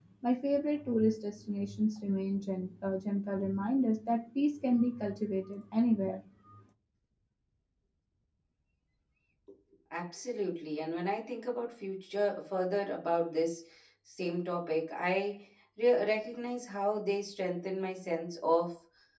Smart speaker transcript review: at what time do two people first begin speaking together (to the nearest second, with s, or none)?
none